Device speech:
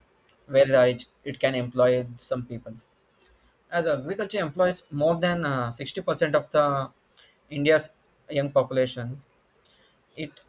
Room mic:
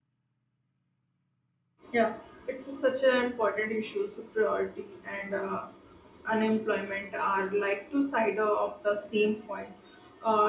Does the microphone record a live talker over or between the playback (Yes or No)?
Yes